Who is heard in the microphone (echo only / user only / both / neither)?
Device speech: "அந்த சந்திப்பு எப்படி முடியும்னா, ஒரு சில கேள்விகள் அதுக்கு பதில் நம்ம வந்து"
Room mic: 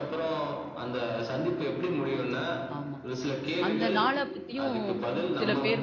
both